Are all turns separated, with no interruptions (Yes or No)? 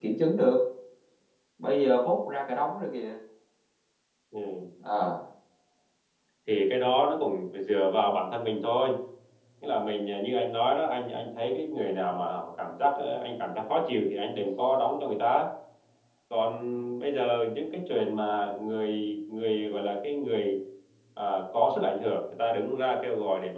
Yes